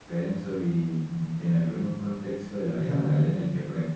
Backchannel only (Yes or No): Yes